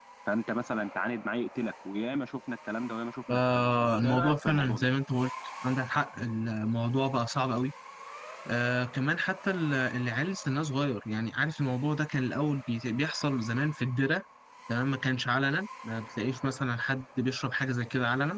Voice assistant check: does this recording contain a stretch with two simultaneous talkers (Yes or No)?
Yes